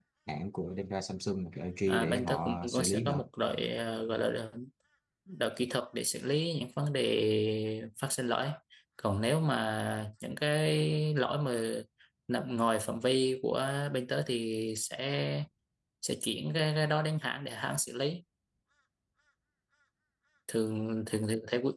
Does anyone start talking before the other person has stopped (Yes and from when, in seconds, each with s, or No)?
Yes, from 1.9 s